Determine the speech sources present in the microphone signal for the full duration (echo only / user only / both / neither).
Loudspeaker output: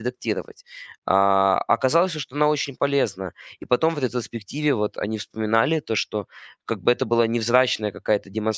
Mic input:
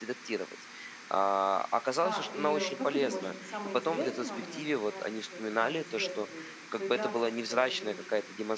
both